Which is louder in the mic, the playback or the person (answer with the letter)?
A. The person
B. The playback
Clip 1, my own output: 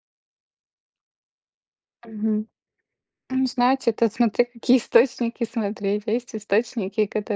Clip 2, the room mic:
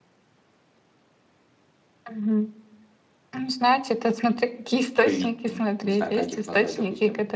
B